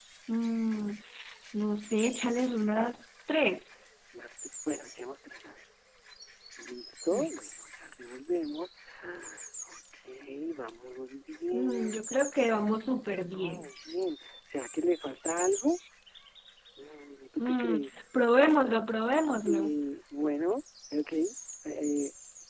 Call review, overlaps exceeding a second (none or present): none